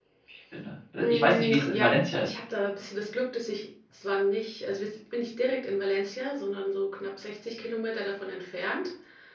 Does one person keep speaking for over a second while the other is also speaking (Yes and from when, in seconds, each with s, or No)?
Yes, from 1.0 s